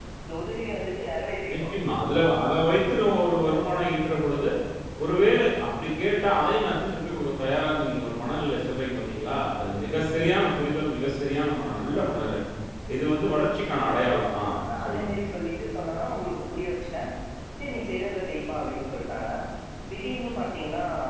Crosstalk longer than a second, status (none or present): none